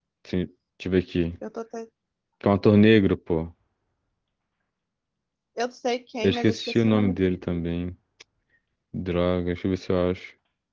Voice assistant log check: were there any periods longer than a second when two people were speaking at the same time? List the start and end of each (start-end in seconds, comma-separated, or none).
6.2-7.6